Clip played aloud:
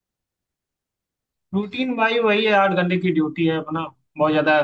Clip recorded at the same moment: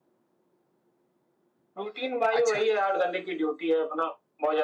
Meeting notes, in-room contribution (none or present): present